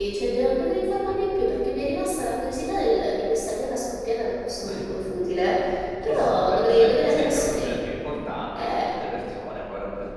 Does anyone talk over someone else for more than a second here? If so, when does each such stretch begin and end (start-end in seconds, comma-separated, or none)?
6.1-7.7